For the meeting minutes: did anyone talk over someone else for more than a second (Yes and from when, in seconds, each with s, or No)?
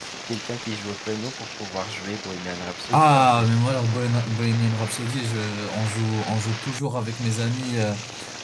No